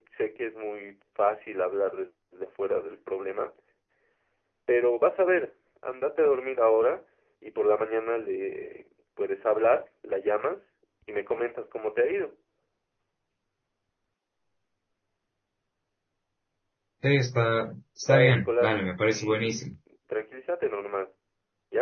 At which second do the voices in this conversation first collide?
18.0 s

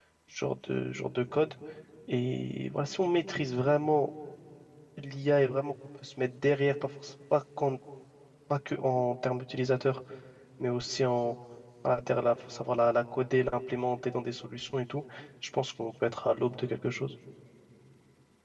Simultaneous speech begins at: none

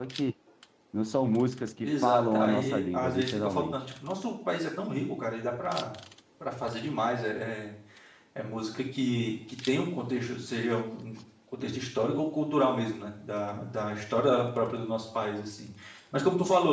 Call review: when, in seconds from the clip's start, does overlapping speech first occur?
1.8 s

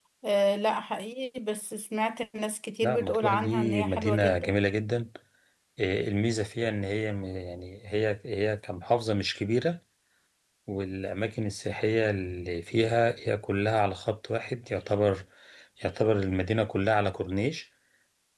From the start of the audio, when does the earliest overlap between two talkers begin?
2.8 s

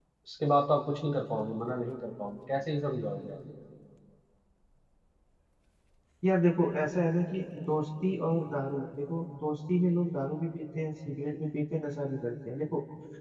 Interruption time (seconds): none

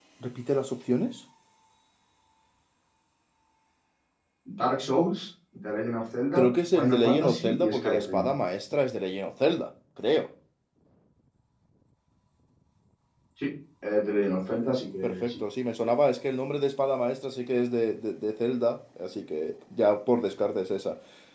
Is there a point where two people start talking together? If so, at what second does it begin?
6.3 s

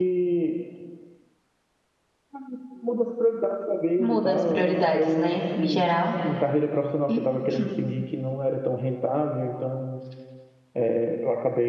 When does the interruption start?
4.0 s

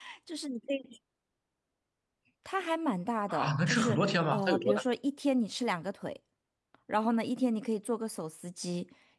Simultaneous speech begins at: 3.3 s

